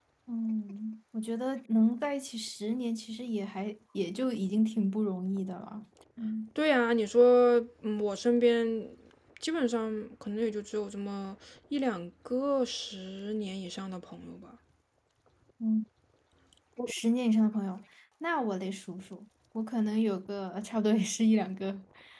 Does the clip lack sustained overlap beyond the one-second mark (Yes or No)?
Yes